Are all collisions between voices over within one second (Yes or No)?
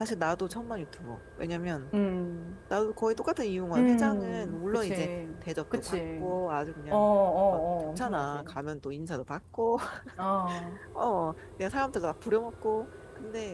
No